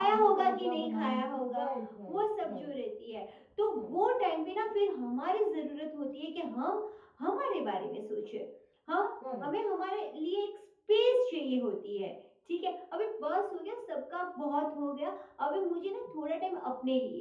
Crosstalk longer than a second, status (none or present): present